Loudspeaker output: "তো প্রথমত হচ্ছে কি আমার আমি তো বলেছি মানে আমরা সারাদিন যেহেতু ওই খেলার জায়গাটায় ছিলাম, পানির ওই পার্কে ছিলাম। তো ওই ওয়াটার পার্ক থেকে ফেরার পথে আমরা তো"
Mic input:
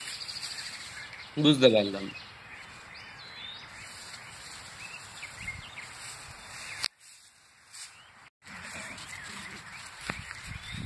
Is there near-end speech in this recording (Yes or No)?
Yes